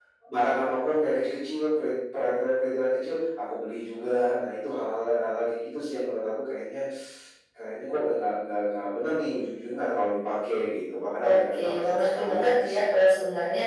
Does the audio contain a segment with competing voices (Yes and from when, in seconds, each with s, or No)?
Yes, from 11.2 s